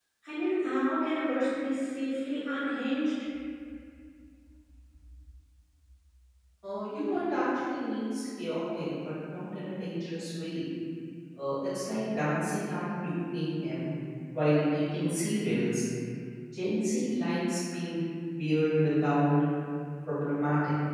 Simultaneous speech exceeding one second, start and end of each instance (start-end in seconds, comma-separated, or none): none